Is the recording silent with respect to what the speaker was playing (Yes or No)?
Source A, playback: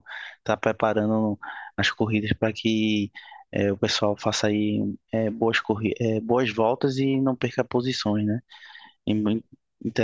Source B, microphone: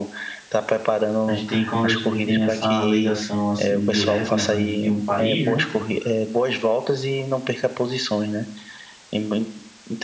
No